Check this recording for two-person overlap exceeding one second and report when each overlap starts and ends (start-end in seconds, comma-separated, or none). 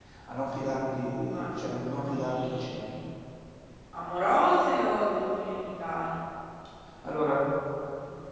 1.3-2.9